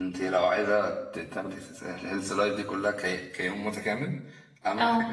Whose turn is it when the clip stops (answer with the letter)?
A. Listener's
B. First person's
B